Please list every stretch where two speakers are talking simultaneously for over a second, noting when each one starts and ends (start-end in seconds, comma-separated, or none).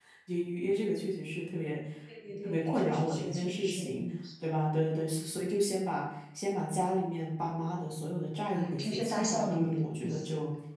2.4-4.0, 8.5-9.8